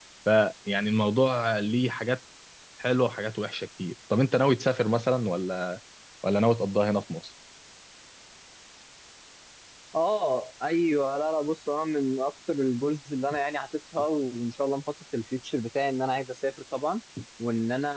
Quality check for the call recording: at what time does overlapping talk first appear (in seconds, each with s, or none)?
none